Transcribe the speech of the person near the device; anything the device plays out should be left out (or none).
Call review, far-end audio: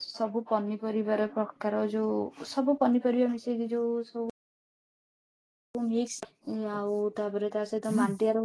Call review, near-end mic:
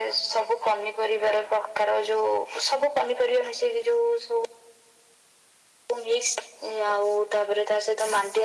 none